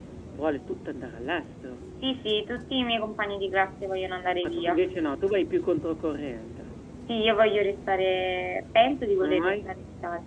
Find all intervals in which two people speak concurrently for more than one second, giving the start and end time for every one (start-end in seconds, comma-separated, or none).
none